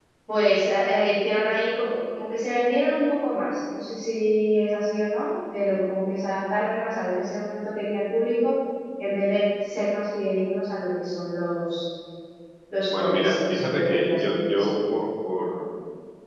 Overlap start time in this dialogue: 12.9 s

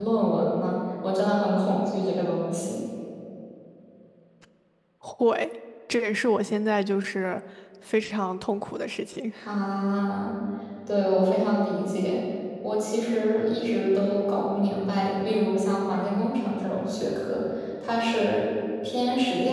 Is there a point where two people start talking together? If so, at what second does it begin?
none

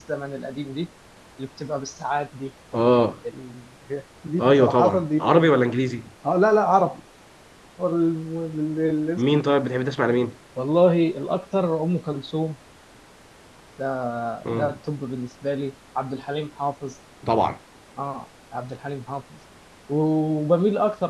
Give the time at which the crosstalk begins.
4.4 s

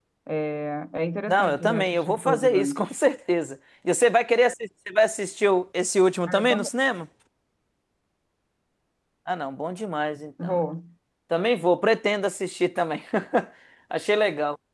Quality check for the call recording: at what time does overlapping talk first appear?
1.3 s

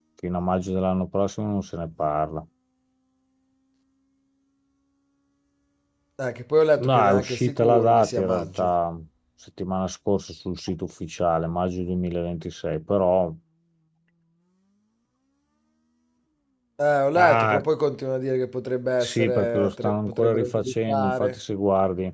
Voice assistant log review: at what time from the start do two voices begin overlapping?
6.8 s

